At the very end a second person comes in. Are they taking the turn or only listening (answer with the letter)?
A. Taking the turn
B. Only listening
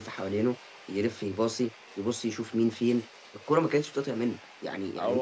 B